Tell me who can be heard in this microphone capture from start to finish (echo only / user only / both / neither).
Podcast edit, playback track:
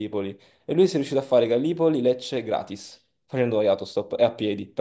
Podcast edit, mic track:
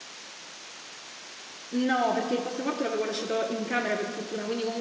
user only